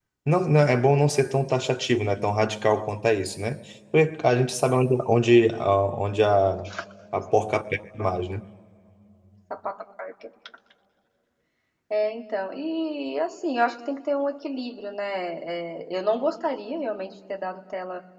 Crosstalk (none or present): none